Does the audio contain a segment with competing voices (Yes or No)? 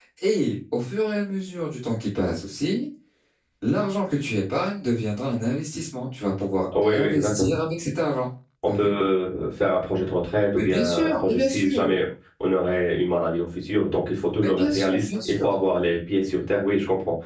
Yes